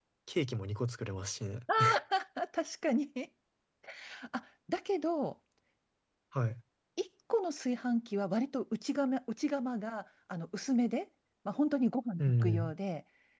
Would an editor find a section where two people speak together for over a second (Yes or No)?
No